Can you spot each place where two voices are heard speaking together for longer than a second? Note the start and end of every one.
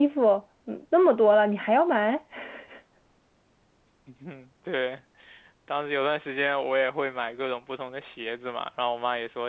none

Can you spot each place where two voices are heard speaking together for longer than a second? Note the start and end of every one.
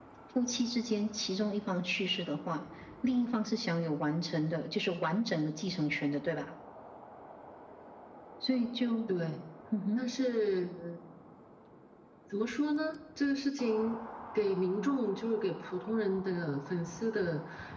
none

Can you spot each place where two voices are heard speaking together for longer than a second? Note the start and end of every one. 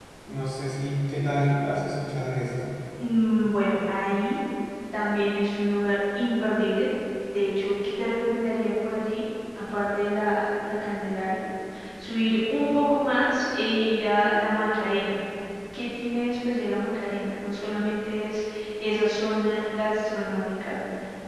none

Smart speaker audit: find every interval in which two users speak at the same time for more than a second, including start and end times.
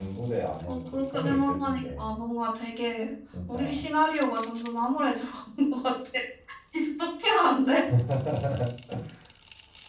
0.6-2.1

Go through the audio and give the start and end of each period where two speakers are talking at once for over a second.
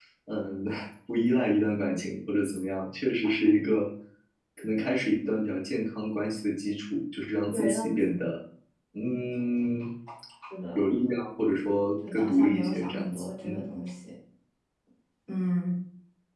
12.1-13.6

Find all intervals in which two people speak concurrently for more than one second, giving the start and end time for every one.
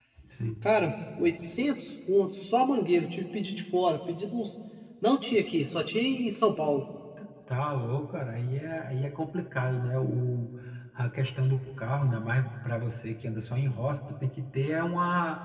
none

